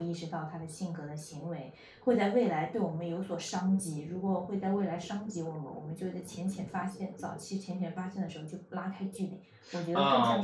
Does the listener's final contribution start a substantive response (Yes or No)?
Yes